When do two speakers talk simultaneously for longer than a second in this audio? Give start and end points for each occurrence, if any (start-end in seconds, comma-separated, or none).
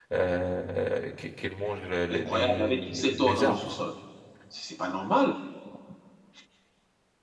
2.1-3.8